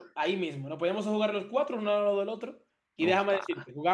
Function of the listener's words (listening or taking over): listening